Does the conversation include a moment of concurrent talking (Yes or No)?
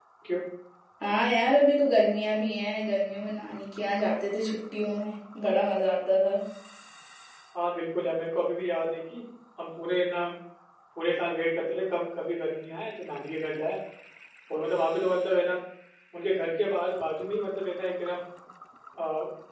No